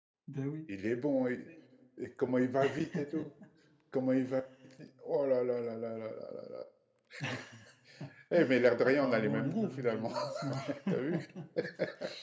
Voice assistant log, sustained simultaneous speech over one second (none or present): present